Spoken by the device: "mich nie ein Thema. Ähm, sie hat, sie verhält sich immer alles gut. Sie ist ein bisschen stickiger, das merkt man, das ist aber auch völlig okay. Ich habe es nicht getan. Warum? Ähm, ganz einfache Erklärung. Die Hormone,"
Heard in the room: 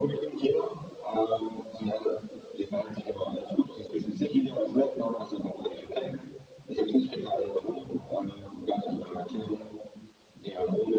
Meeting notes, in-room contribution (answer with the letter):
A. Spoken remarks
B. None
B